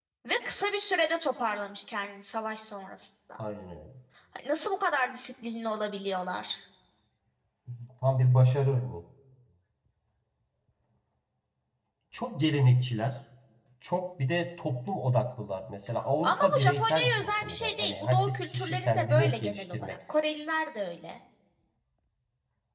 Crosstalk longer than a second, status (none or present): present